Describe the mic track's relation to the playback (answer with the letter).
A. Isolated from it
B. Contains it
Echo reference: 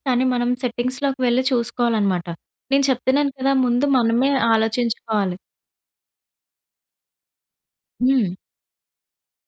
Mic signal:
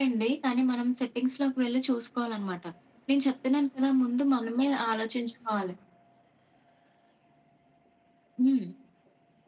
B